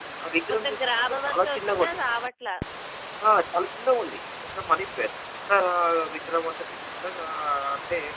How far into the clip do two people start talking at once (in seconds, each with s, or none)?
0.5 s